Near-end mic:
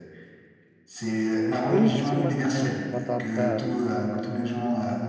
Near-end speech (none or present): present